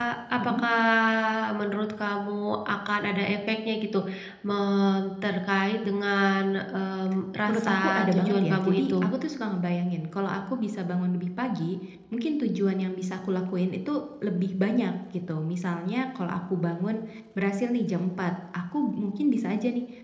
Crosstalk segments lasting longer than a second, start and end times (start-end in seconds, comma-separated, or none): 7.5-8.9